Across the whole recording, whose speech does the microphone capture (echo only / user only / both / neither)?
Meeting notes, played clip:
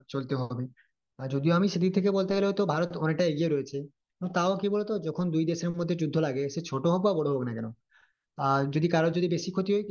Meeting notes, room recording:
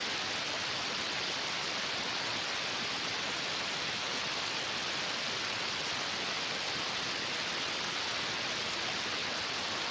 neither